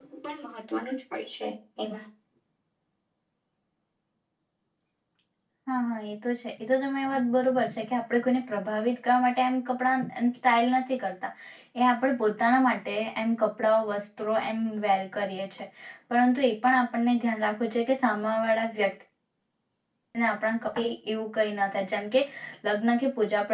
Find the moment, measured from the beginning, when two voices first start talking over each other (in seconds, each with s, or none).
none